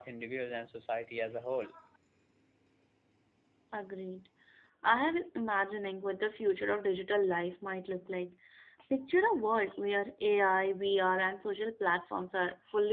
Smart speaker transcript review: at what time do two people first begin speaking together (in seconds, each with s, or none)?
none